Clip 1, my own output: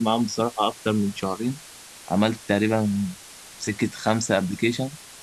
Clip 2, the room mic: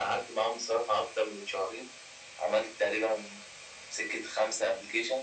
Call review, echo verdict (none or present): present